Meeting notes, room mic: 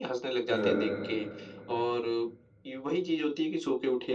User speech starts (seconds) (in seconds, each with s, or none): 0.5 s